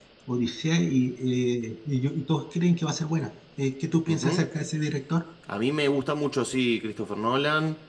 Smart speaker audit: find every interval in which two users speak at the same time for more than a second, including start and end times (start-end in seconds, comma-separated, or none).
none